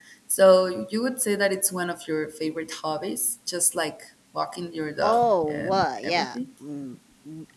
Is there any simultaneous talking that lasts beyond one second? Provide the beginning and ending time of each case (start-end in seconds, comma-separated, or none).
5.0-6.4